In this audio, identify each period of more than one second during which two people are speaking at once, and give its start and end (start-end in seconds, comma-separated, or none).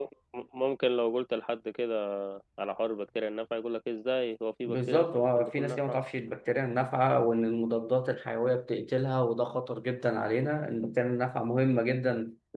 4.7-6.0